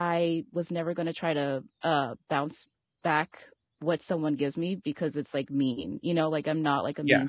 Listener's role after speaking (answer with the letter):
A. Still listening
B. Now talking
A